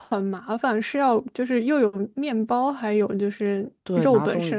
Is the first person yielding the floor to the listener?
Yes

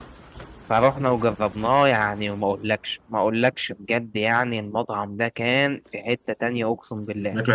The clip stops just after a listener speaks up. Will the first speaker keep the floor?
Yes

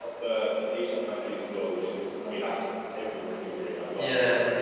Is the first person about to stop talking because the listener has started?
Yes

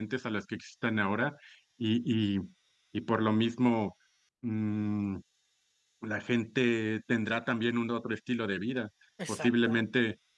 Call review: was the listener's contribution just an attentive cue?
Yes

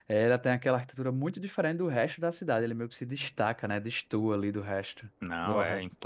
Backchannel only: No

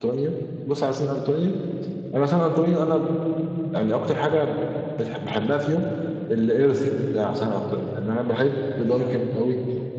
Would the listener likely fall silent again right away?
Yes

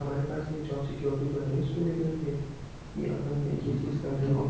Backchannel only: No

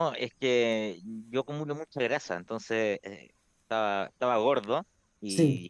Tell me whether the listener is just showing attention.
Yes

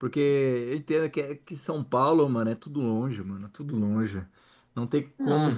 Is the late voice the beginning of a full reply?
No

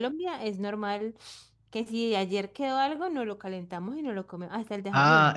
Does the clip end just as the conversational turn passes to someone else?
Yes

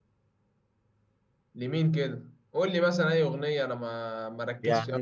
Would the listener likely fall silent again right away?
No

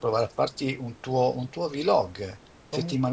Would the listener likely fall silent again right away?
Yes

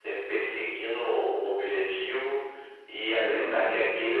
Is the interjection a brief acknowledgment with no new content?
Yes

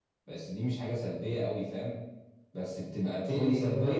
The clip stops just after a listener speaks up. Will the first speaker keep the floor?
Yes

